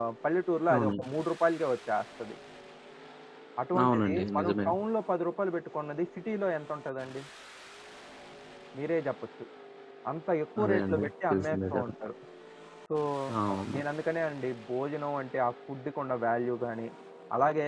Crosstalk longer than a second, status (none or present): present